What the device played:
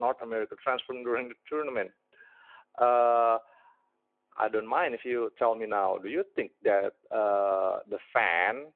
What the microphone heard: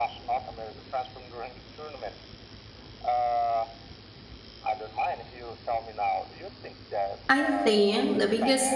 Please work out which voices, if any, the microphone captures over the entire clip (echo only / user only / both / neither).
both